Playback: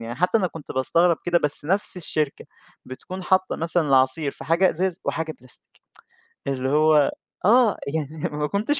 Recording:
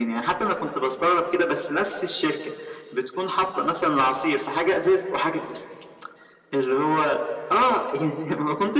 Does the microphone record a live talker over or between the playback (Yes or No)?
No